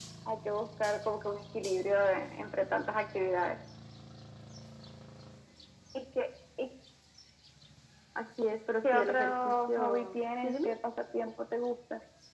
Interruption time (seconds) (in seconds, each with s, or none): 8.8 s